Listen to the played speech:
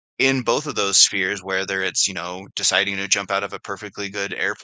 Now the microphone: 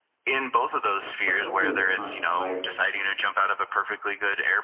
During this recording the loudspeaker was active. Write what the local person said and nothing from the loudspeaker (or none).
a couple of times like,